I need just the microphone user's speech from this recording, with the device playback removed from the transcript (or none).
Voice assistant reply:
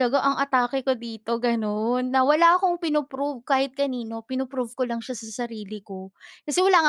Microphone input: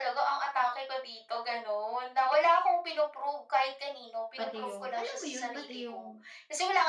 pati 'yong, alam mo 'yon, pati 'yong,